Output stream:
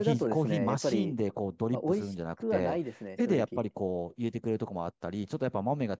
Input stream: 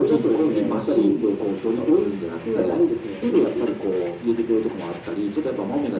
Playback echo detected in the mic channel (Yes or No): Yes